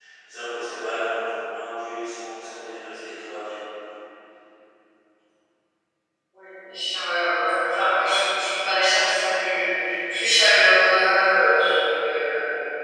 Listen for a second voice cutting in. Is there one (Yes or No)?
No